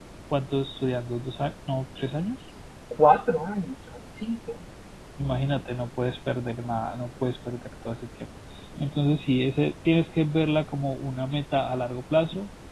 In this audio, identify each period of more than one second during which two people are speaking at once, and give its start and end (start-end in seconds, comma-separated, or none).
none